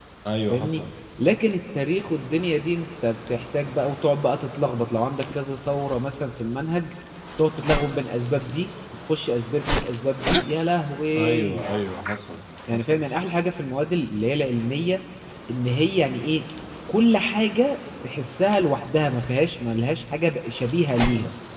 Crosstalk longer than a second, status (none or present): none